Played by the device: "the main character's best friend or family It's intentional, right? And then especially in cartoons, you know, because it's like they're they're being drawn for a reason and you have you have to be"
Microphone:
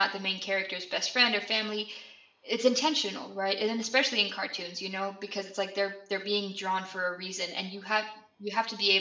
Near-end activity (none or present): none